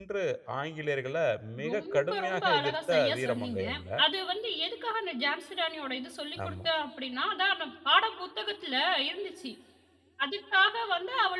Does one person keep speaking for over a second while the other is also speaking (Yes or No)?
Yes